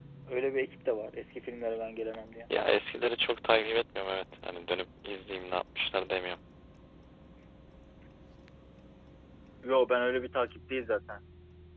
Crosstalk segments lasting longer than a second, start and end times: none

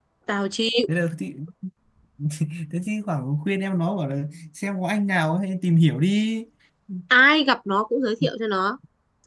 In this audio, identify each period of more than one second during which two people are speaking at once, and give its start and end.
none

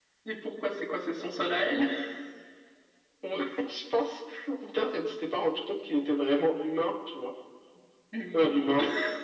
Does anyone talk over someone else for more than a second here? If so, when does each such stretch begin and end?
none

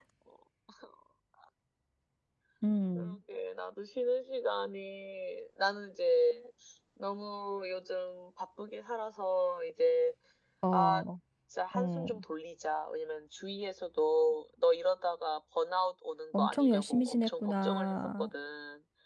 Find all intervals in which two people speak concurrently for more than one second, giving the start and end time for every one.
16.3-18.3

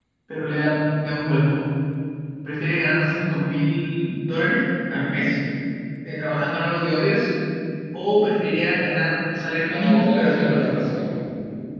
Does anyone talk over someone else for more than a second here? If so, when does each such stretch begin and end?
9.7-10.9

